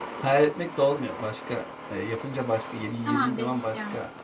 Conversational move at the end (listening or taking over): listening